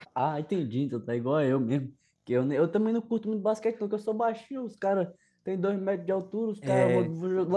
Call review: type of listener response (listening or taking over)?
listening